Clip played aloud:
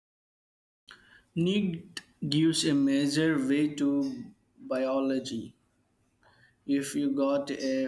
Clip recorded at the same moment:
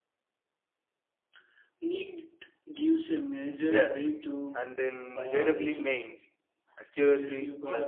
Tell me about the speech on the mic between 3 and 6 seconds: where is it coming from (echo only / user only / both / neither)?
both